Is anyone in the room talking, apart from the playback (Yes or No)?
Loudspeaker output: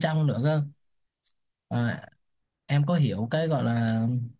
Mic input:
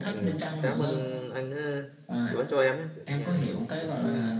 Yes